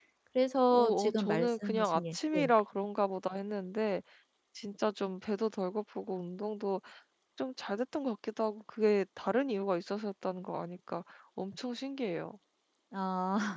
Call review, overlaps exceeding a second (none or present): present